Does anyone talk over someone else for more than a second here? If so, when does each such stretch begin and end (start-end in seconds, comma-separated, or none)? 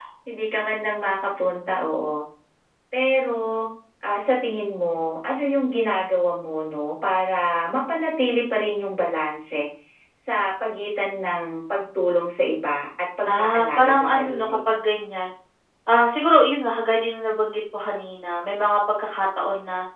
13.2-14.4